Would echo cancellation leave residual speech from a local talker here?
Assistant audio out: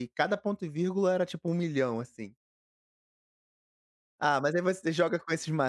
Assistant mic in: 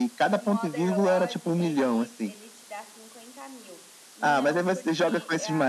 Yes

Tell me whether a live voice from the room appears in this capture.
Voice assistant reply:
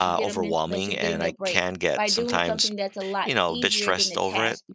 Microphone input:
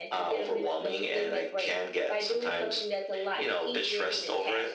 No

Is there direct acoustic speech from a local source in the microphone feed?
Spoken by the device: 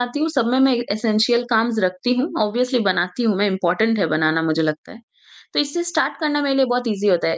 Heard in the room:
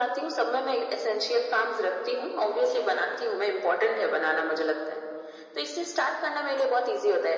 No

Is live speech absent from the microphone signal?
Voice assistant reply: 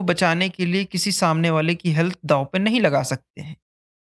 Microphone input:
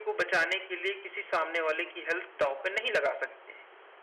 Yes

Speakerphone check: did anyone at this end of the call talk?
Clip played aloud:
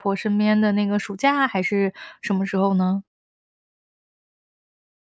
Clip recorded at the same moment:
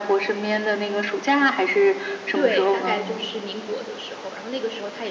Yes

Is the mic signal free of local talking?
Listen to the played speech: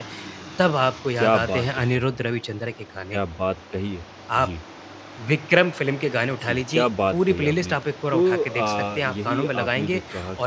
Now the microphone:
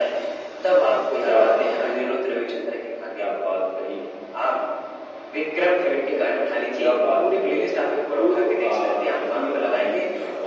Yes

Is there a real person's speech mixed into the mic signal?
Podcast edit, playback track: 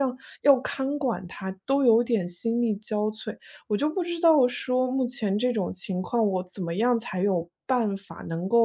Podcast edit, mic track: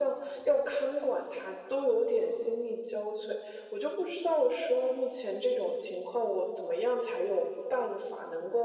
No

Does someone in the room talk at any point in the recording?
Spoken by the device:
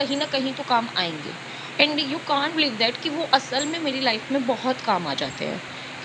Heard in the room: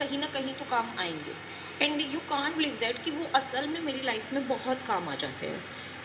No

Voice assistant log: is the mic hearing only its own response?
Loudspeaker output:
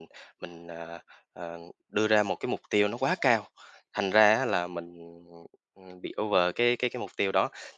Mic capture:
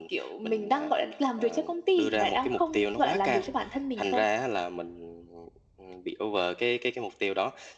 No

